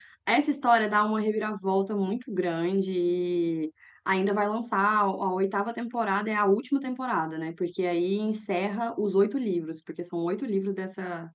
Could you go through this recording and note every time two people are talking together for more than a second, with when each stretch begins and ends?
none

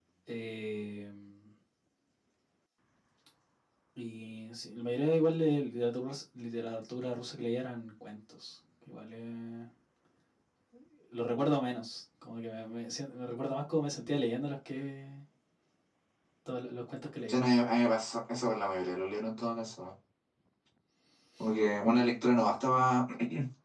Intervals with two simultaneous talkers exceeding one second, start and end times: none

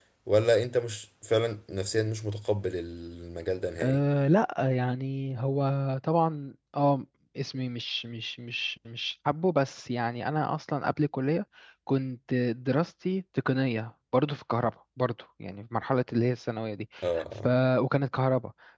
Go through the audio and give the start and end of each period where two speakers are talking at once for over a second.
none

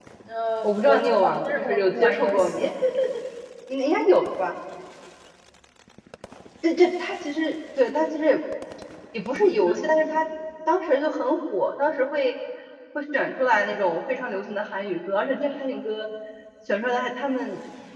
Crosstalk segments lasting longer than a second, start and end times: 0.6-2.6

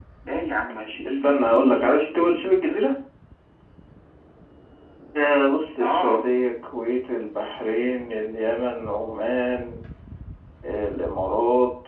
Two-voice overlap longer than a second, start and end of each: 1.1-2.7

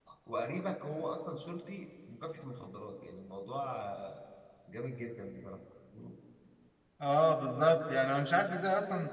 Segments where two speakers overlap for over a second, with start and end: none

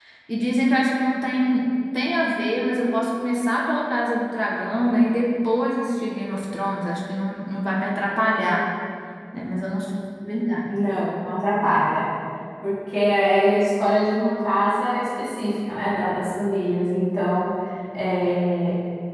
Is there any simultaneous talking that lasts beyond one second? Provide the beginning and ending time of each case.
none

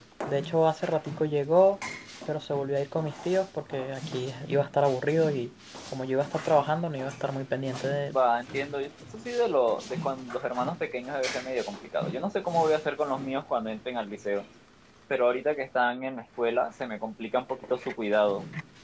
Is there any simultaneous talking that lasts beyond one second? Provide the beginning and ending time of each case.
none

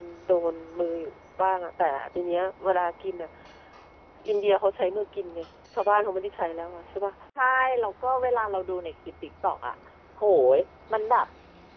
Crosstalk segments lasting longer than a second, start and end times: none

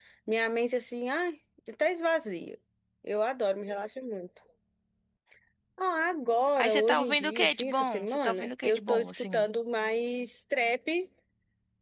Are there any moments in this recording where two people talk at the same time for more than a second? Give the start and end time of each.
6.6-9.4

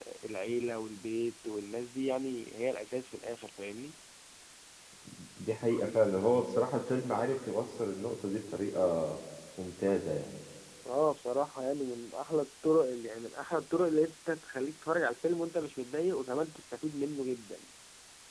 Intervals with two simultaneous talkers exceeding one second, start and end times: none

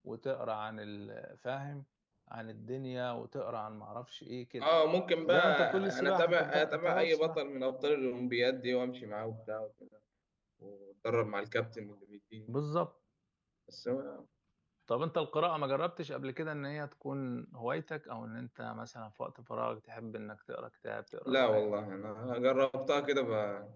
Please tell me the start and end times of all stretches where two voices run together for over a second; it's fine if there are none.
5.3-7.4

